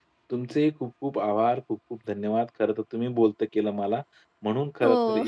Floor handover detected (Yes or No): No